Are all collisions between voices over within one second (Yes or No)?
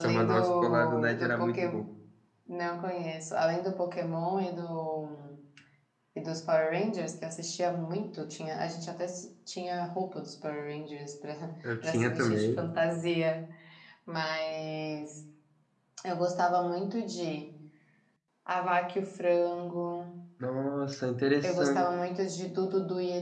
No